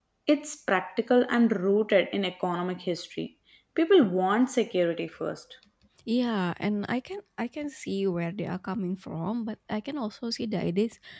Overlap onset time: none

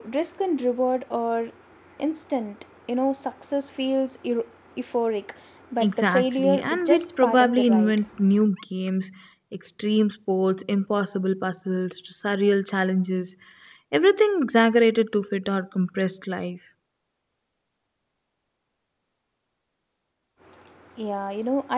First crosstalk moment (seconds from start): 6 s

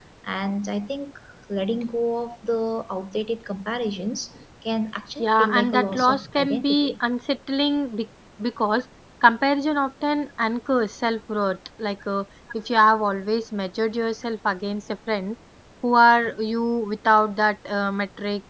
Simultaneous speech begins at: 5 s

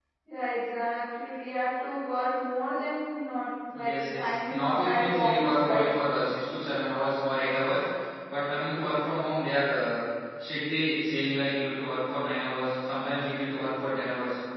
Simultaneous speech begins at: 4 s

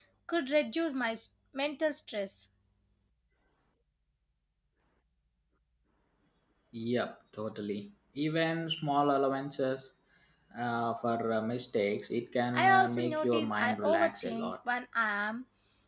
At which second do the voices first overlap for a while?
13 s

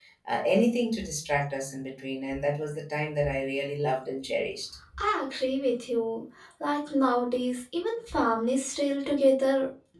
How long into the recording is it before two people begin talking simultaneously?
none

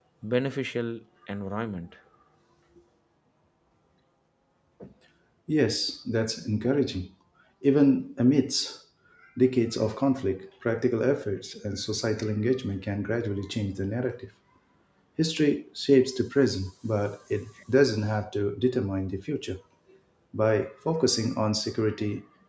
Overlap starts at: none

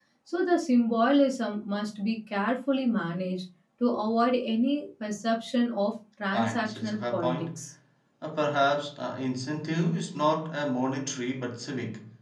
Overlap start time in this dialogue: 6 s

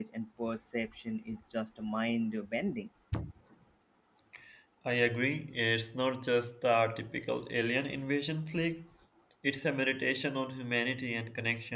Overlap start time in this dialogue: none

